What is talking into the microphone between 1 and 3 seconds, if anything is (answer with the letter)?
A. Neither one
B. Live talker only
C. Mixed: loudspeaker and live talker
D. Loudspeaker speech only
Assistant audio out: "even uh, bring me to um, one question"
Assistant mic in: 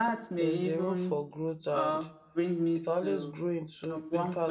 C